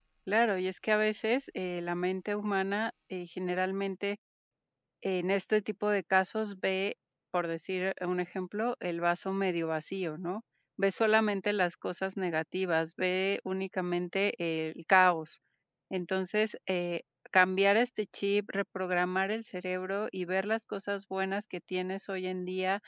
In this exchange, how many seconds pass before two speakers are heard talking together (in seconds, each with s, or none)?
none